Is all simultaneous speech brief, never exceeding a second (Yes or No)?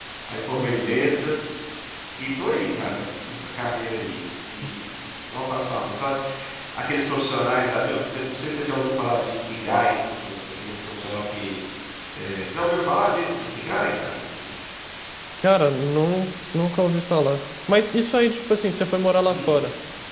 Yes